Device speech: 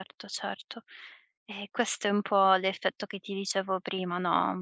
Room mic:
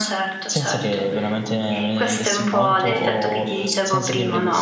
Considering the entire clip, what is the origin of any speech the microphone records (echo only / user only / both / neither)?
both